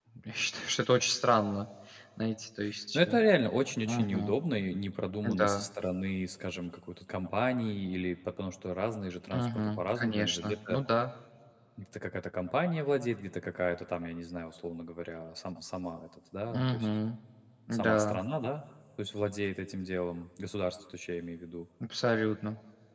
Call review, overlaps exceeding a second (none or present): present